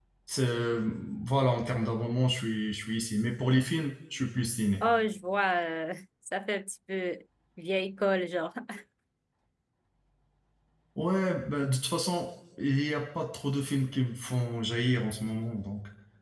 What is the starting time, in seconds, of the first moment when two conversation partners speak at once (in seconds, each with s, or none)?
none